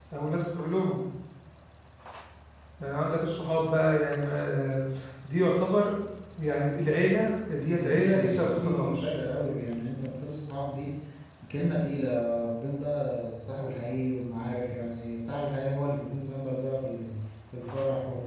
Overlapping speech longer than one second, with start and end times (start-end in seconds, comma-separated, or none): 7.8-9.1